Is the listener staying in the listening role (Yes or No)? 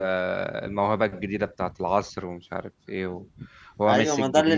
No